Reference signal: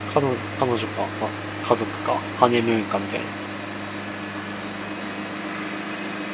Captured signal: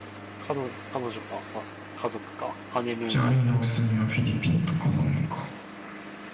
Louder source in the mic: user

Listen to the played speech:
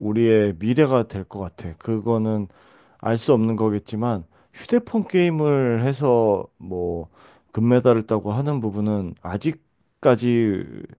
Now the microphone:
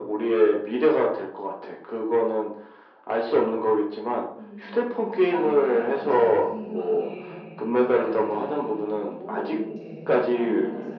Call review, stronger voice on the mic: echo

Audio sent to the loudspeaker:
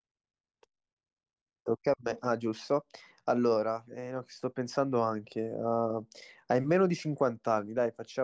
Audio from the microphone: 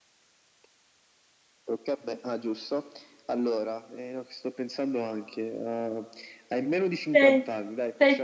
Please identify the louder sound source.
user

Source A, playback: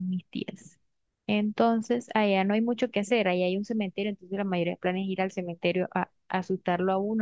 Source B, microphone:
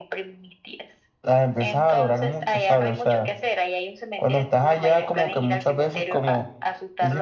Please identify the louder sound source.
user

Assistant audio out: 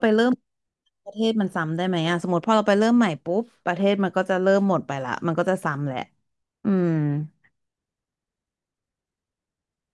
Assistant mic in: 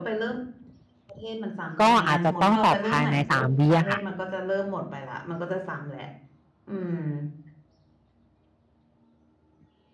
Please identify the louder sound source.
user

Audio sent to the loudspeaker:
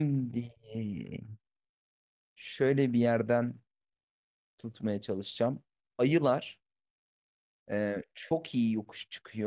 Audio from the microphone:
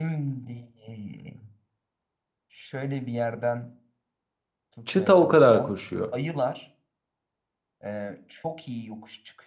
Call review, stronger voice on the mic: user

